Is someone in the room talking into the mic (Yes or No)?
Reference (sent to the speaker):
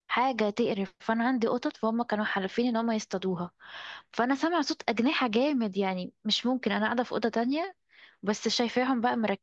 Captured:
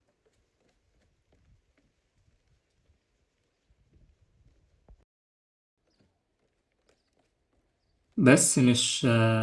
Yes